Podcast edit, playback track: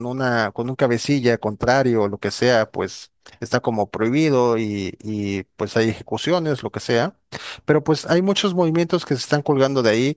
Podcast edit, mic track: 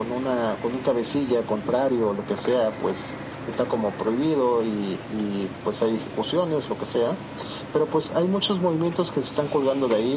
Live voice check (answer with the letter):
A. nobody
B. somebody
A